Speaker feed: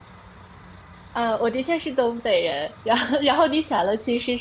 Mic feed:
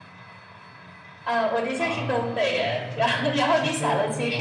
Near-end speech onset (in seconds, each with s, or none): 1.8 s